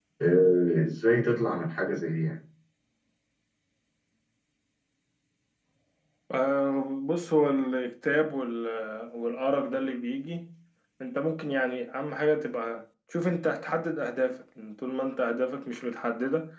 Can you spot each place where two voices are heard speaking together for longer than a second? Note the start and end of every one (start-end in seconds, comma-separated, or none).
none